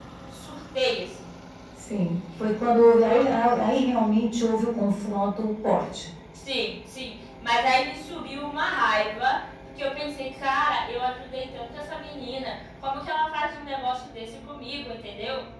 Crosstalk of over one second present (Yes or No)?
No